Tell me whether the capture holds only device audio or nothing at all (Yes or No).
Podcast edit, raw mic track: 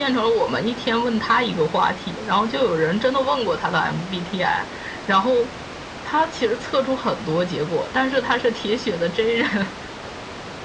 Yes